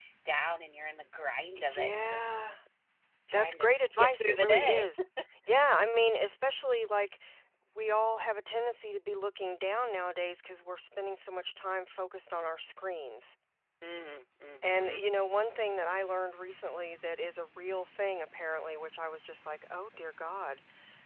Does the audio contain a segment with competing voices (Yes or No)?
Yes